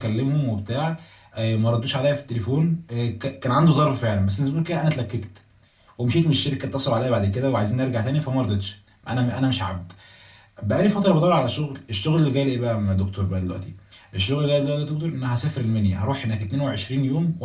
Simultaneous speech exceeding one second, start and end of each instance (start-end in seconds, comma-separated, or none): none